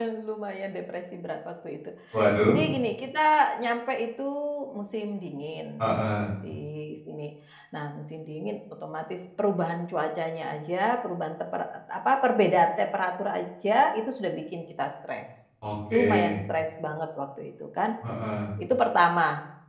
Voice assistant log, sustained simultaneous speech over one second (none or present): none